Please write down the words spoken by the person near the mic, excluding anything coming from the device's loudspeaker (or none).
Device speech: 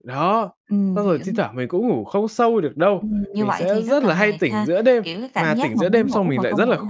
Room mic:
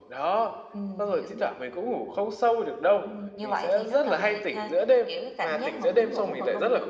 none